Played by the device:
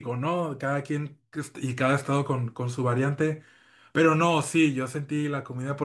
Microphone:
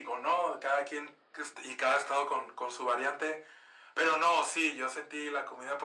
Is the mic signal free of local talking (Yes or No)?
Yes